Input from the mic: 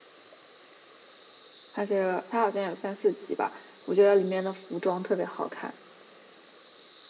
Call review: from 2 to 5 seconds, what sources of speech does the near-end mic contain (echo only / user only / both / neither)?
echo only